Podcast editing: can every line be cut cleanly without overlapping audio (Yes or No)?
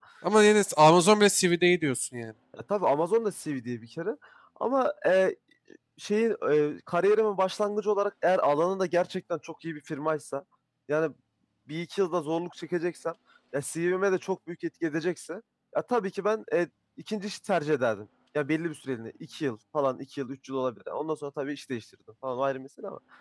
Yes